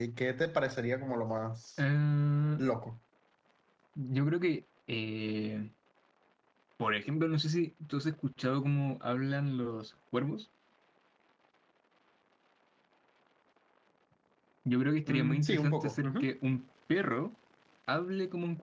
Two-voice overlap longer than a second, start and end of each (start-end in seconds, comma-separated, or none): 15.1-16.3